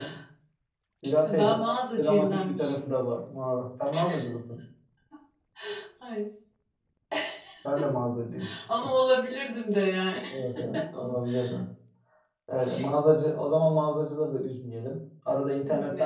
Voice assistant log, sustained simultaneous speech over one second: present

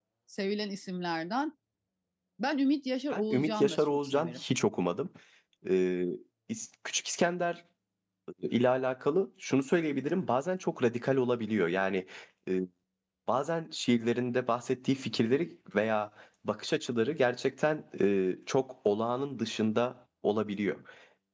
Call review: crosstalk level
present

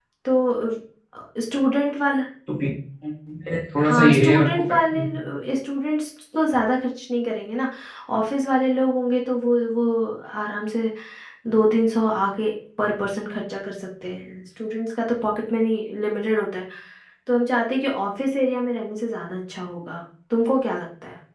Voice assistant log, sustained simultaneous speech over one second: present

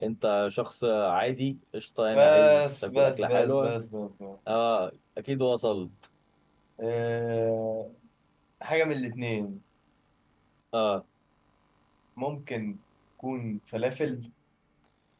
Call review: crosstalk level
present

